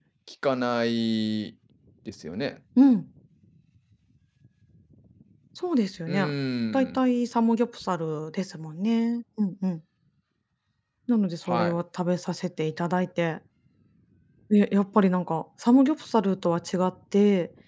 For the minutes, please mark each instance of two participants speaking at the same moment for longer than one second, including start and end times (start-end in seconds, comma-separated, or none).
none